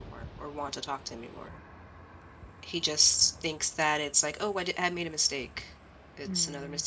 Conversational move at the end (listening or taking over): taking over